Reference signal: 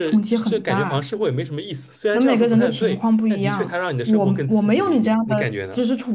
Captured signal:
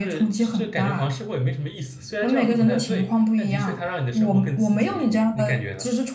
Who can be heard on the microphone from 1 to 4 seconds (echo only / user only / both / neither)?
echo only